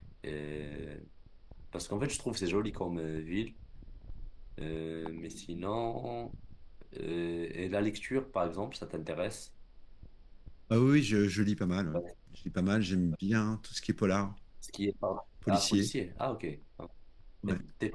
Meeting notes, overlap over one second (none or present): none